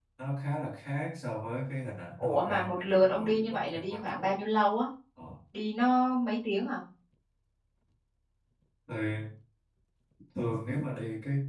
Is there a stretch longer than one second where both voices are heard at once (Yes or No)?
Yes